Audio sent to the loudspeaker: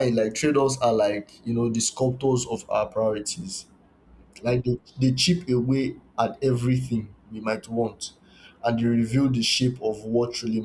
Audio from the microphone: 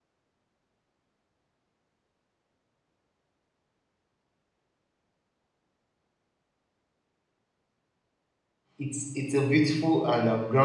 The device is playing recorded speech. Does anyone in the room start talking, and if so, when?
9 s

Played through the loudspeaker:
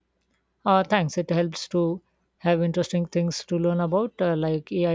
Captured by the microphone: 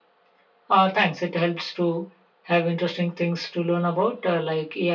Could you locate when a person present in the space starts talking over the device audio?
none

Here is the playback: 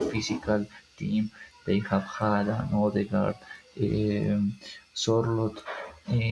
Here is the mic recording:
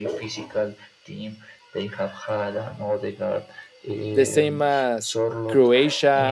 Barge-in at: 4 s

